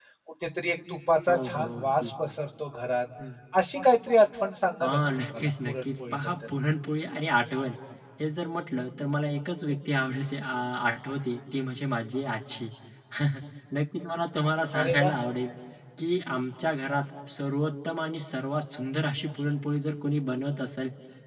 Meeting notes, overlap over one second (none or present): present